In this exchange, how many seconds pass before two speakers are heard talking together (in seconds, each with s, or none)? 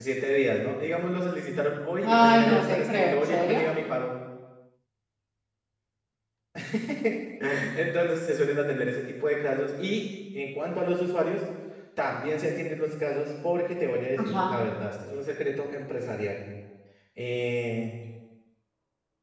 2.0 s